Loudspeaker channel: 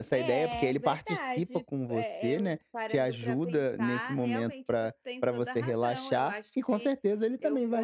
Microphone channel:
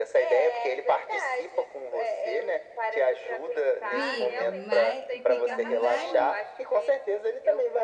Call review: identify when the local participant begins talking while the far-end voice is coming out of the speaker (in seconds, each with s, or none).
3.9 s